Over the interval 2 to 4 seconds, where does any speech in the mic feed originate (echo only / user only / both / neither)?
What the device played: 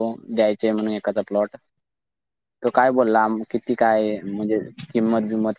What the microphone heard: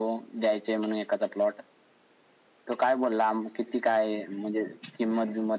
echo only